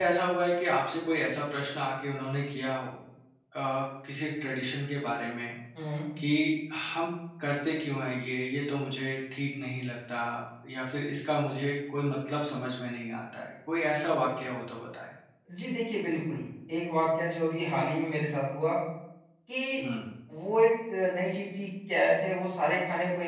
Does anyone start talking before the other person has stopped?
No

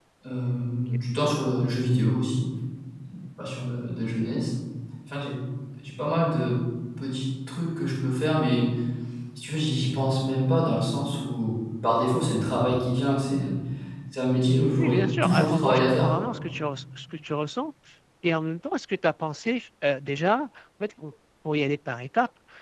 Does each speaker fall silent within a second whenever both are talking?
No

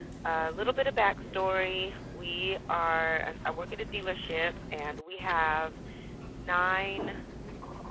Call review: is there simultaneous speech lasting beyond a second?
No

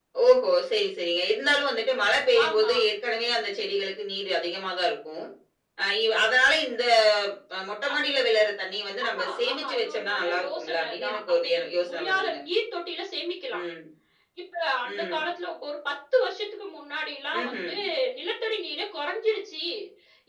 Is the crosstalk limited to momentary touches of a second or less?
No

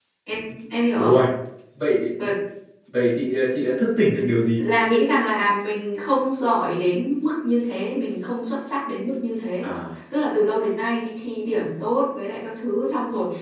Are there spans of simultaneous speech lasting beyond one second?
No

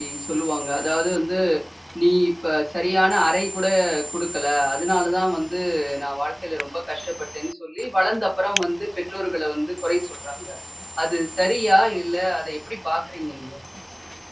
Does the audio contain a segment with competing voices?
No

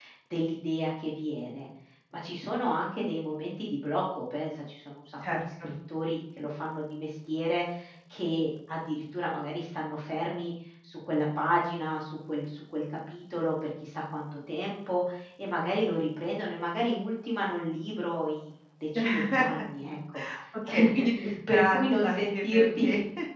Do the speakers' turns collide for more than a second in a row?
Yes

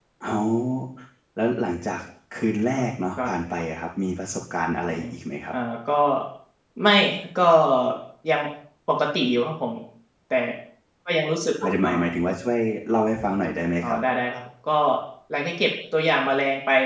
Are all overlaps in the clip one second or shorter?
Yes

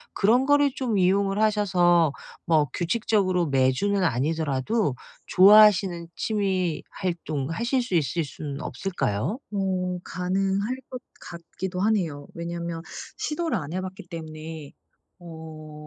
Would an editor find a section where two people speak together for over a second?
No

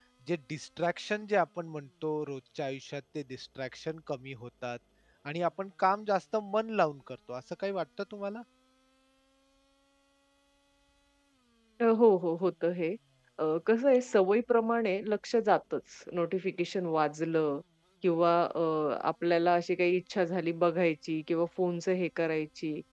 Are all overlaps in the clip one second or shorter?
Yes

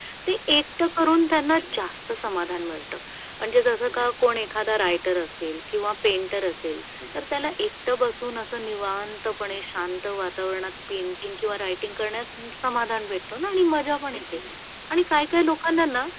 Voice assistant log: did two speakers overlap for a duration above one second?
No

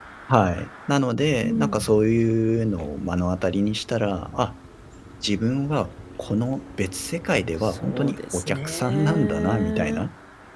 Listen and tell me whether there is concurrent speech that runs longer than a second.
Yes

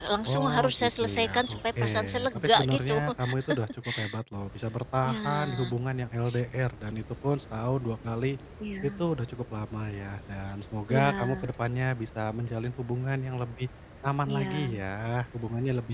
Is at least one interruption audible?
Yes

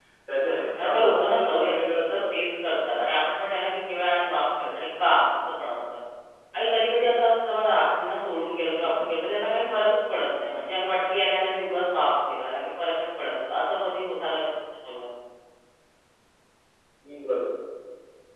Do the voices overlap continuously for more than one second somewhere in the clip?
Yes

